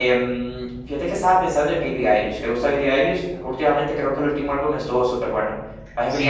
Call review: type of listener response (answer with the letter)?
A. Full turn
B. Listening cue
A